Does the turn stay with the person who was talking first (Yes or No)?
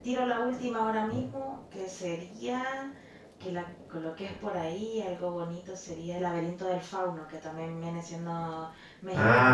Yes